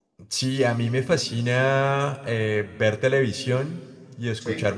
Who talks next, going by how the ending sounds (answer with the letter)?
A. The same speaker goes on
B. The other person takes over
A